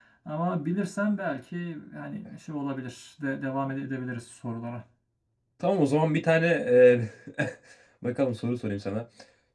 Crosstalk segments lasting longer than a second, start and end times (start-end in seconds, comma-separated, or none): none